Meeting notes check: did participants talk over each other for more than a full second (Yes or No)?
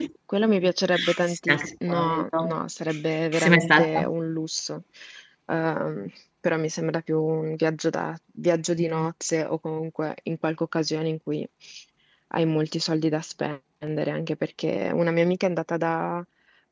Yes